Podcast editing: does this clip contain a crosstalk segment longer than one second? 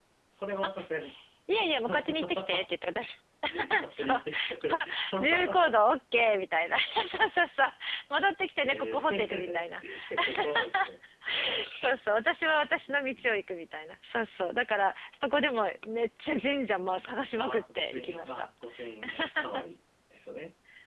Yes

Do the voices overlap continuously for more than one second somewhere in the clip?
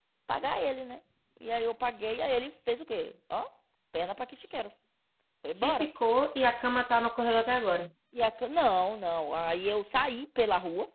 No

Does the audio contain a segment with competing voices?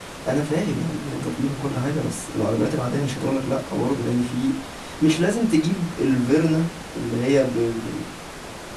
No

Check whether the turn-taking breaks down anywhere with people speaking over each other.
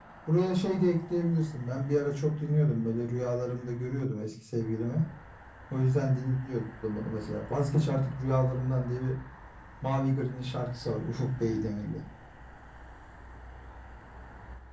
No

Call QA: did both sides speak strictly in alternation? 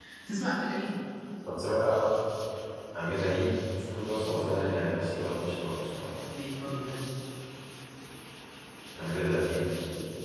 Yes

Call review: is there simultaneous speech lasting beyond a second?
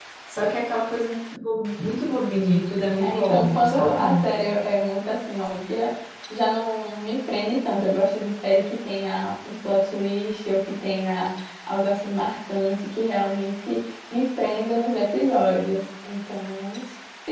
Yes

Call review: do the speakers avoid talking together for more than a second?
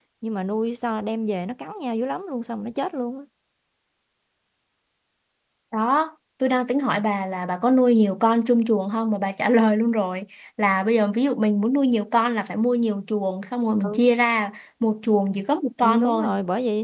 Yes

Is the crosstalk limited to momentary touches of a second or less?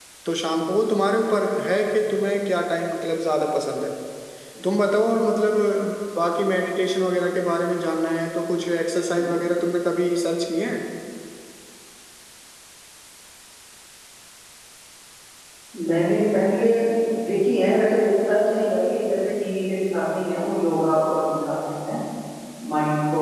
Yes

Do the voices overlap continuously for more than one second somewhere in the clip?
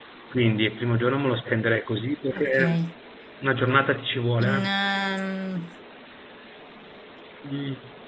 No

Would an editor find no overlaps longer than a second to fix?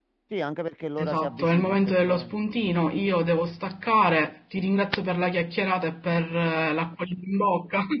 No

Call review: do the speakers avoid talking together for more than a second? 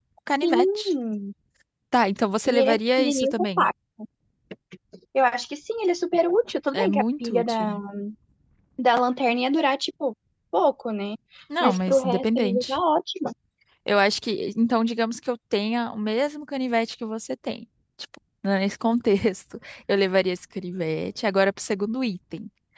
No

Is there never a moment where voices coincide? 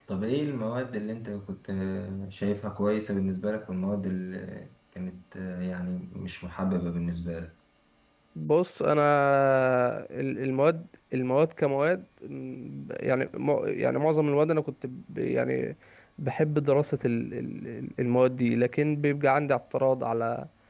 Yes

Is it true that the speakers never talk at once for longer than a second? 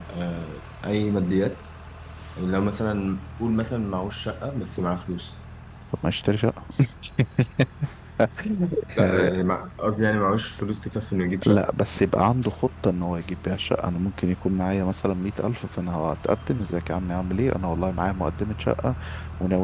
Yes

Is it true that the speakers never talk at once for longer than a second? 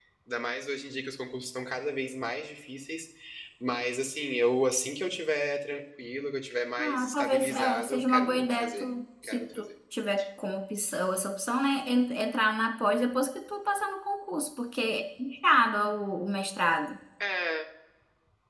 No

